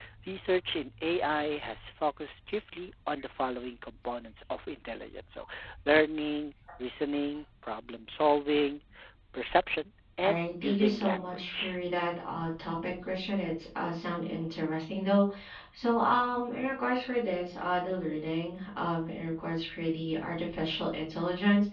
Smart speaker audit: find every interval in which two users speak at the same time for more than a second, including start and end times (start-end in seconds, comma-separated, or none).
10.2-11.8